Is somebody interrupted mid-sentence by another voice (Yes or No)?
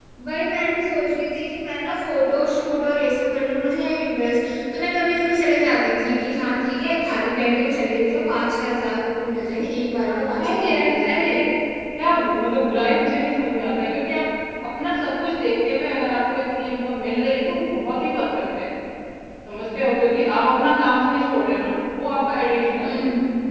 Yes